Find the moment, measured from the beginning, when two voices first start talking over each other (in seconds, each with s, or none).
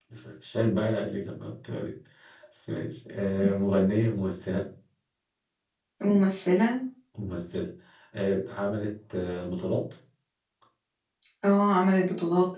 none